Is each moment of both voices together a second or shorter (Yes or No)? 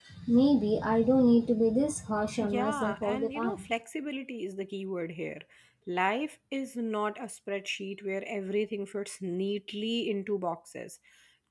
No